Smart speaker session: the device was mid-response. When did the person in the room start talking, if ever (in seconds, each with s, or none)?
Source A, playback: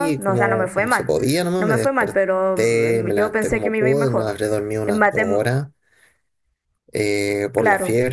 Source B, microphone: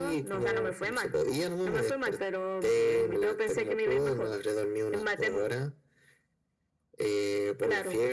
none